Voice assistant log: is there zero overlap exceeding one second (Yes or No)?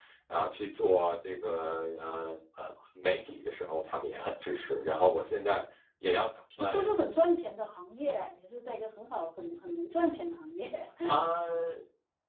Yes